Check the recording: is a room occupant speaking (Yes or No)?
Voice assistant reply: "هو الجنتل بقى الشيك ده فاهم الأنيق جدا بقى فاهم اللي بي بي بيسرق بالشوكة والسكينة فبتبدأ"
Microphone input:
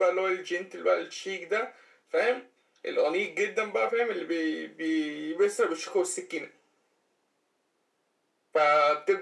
No